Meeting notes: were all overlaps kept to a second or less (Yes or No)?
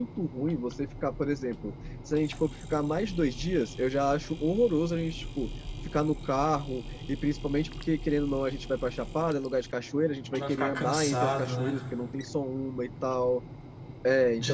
No